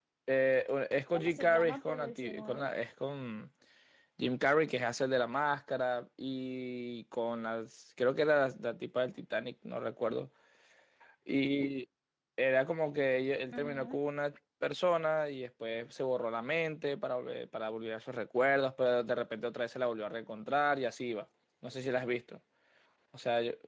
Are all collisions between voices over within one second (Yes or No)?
No